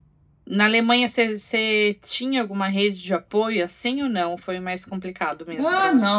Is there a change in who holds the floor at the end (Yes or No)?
Yes